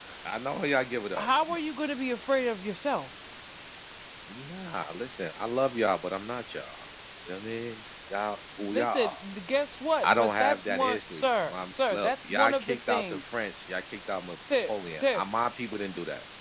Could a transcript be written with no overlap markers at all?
No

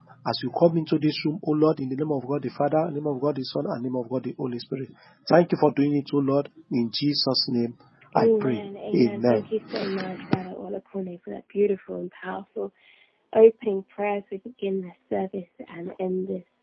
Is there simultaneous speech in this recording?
Yes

